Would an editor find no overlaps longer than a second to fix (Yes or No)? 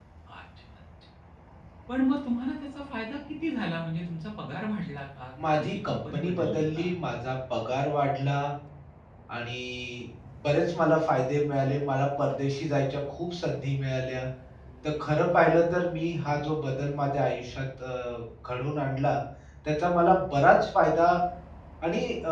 No